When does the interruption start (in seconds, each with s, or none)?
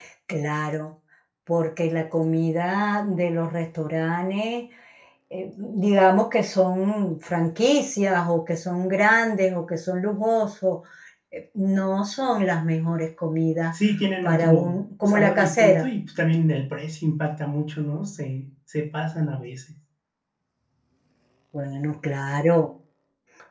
14.2 s